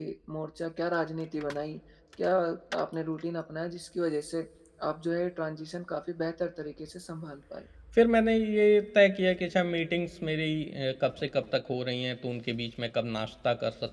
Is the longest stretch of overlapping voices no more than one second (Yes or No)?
Yes